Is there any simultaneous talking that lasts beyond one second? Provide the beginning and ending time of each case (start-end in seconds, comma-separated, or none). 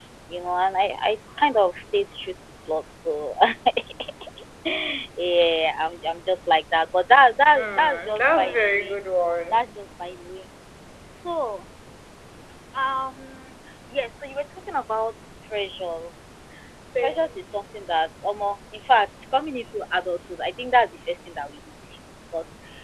7.5-8.9